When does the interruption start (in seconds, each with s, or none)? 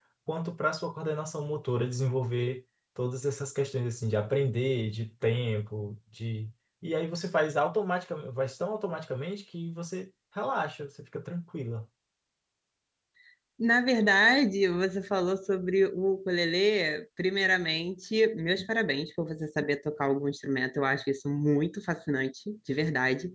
none